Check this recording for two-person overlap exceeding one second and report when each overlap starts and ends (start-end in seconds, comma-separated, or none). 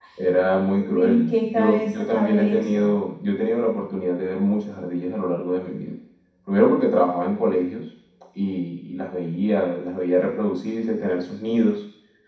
0.7-3.0